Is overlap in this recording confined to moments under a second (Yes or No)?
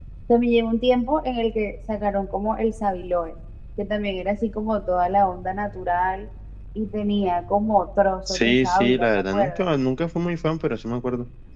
No